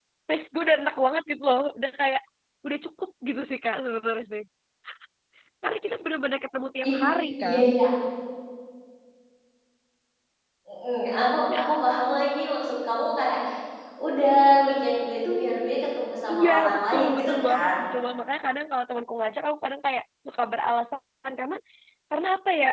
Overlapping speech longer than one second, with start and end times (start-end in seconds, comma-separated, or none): 16.3-17.7